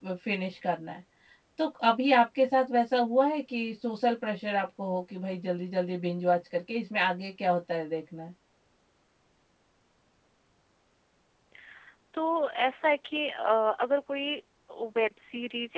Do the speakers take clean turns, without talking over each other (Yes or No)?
Yes